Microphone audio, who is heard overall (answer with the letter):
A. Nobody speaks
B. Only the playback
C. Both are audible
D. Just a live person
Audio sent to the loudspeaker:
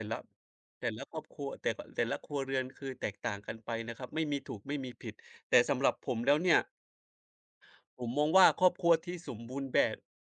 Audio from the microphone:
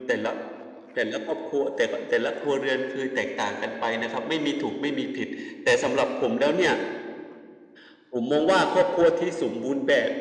B